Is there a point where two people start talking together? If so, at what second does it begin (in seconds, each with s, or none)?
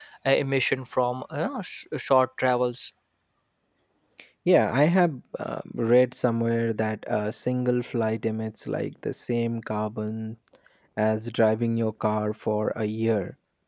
none